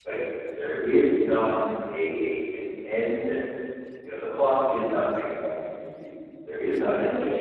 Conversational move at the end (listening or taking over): taking over